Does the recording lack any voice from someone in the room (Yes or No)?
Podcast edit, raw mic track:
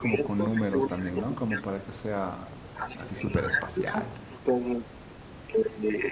No